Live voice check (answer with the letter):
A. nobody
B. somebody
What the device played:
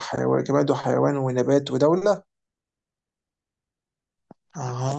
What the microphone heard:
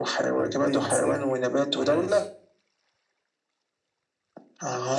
B